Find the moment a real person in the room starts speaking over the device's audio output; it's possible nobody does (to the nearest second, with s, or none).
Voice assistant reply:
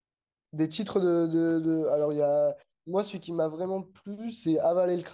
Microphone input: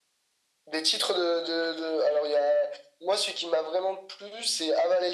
none